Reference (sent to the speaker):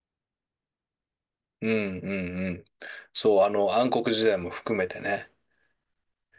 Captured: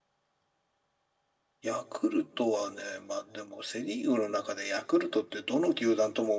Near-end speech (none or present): present